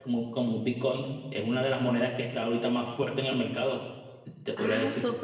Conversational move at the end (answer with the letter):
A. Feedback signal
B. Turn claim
B